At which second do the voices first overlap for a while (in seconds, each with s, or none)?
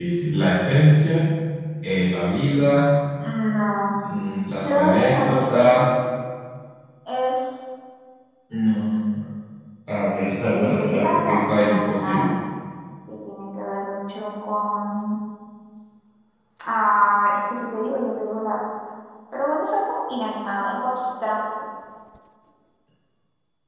4.6 s